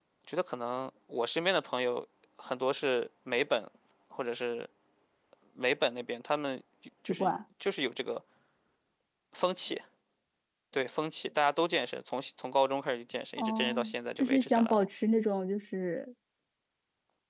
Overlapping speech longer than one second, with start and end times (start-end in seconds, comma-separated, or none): 13.4-14.9